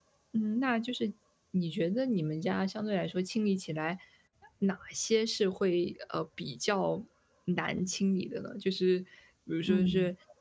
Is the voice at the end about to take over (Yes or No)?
No